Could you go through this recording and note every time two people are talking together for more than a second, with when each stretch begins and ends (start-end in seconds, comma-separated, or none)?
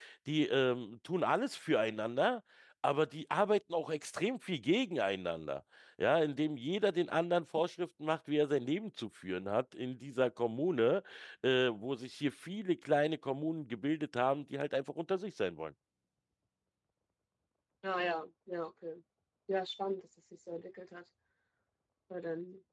none